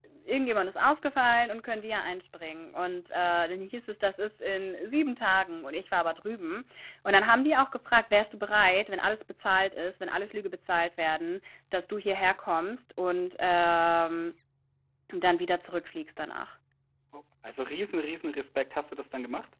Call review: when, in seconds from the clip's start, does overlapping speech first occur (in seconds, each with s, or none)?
none